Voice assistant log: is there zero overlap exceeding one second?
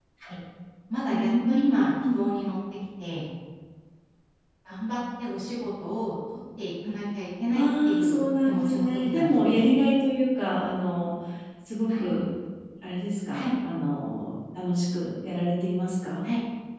No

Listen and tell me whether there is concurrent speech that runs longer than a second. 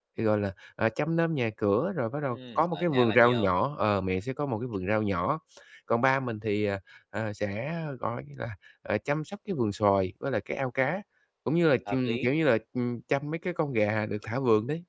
Yes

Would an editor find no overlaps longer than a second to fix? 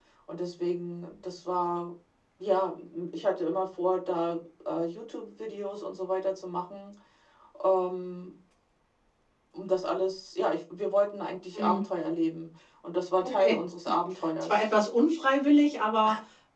Yes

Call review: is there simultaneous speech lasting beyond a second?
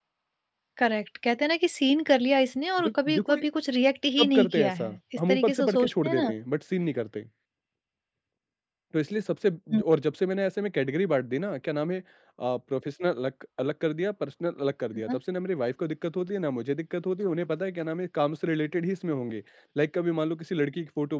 Yes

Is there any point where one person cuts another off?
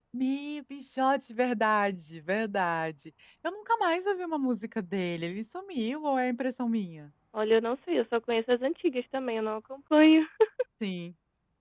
No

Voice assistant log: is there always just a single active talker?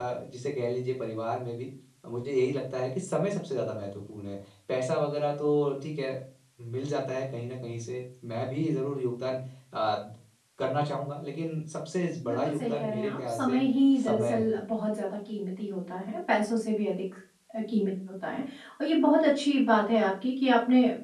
No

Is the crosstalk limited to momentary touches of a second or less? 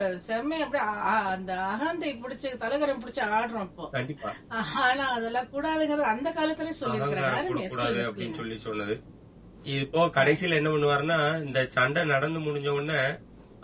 No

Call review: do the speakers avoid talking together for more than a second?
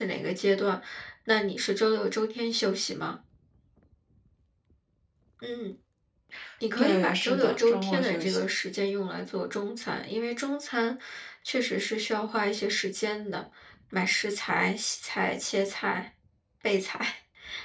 No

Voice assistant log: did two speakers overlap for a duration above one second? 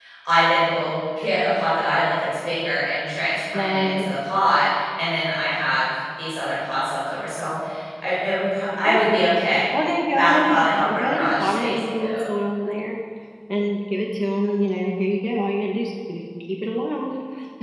Yes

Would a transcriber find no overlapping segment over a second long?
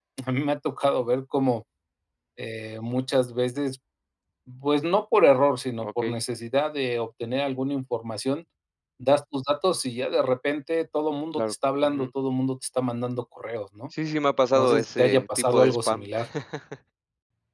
No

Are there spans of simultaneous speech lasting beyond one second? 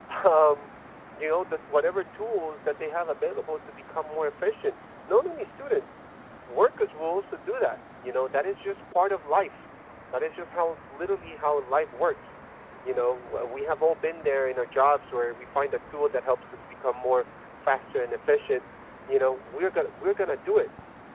No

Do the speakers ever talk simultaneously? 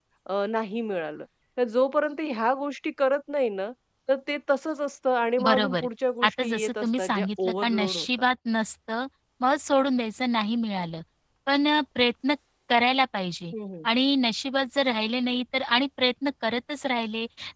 Yes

